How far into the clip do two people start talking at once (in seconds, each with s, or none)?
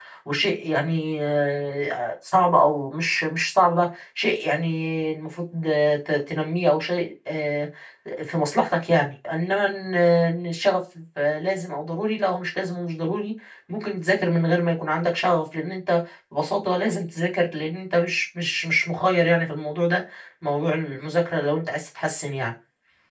none